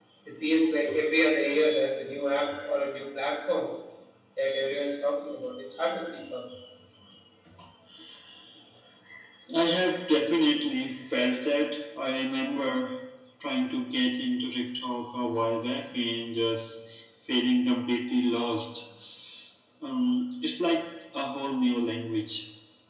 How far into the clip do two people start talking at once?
none

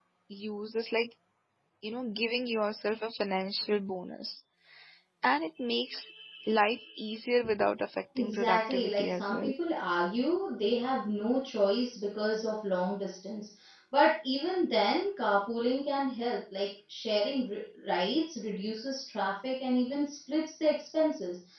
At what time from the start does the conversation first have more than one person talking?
8 s

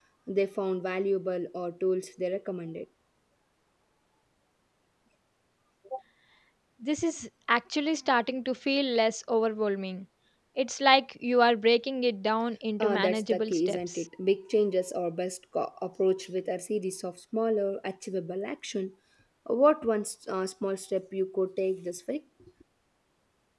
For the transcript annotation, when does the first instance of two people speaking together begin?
13 s

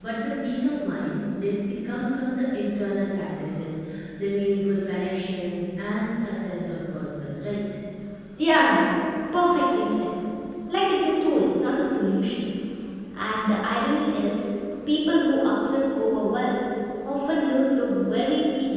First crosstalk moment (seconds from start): none

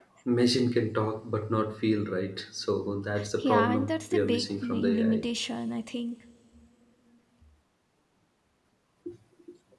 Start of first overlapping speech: 3 s

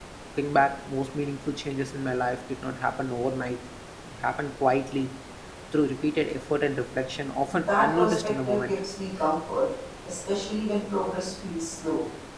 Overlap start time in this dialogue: 7 s

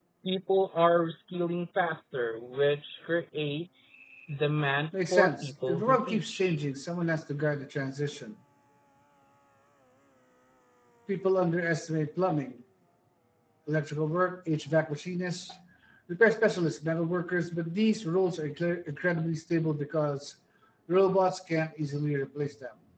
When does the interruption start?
5 s

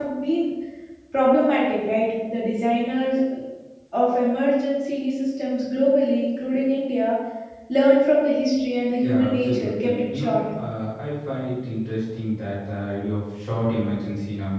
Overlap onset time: 9 s

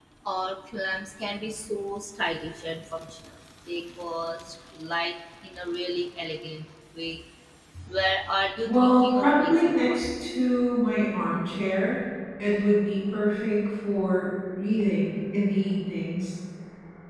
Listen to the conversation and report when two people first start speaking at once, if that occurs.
9 s

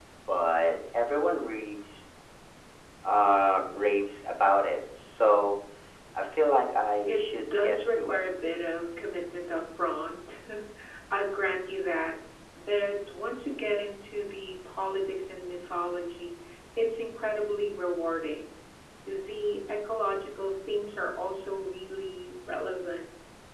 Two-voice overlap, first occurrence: 7 s

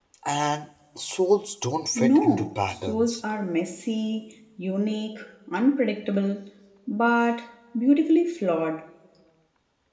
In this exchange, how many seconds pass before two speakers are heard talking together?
2 s

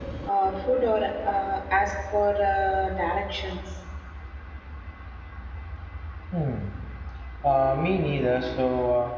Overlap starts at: none

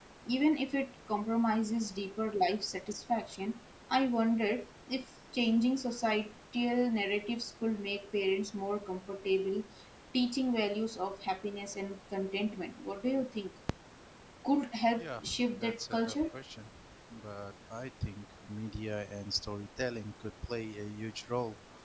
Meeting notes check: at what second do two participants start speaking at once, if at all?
15 s

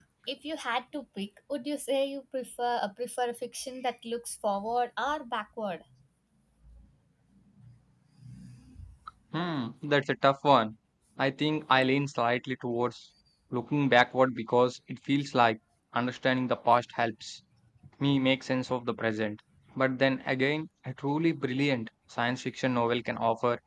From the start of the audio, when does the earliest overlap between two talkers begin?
none

